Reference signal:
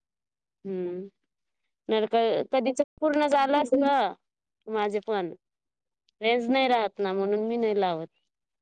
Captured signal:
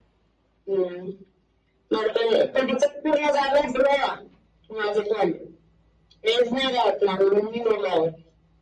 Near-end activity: none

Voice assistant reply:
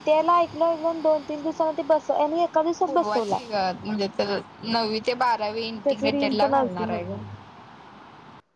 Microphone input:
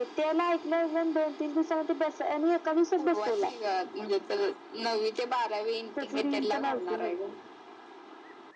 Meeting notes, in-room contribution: none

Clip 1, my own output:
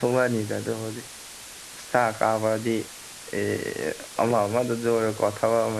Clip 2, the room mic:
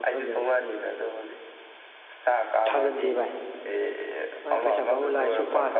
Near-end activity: present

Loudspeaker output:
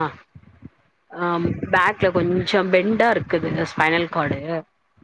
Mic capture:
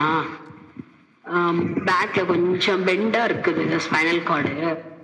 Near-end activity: none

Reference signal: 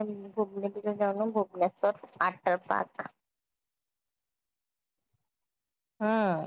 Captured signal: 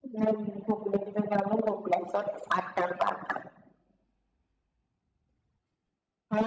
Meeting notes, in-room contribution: none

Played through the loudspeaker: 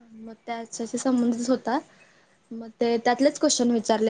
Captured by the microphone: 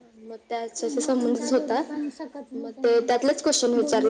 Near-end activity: present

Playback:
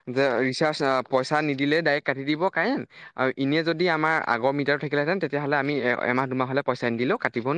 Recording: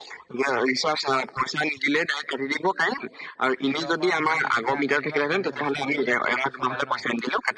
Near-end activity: present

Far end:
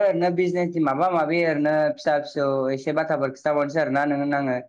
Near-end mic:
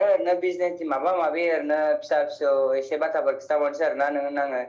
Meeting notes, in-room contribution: none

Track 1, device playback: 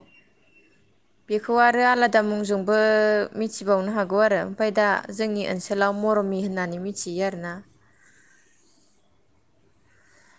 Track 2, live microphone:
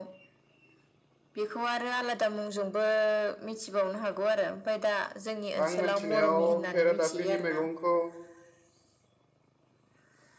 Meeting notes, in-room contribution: present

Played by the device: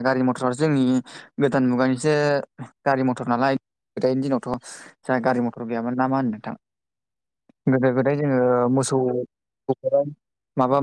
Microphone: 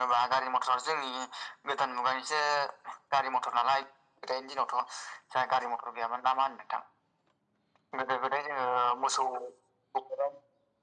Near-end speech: none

